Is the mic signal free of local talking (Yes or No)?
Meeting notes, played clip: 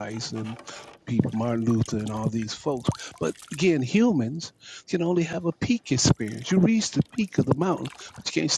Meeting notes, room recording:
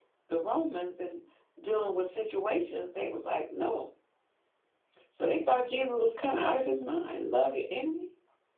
No